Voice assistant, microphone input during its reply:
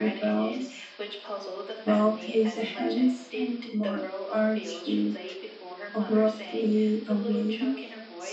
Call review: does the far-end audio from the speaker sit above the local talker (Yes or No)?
No